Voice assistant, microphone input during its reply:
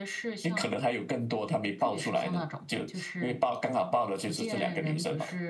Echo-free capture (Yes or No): No